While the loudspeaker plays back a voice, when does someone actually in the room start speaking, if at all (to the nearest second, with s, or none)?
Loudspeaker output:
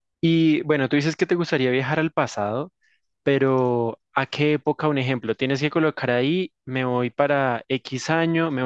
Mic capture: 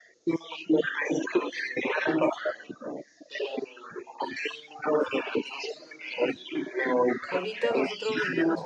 7 s